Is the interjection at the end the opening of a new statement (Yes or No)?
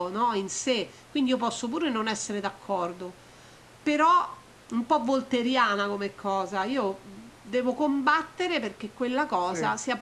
No